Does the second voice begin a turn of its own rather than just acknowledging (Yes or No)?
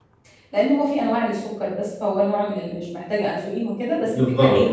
Yes